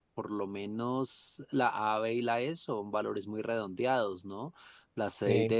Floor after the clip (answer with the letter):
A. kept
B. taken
A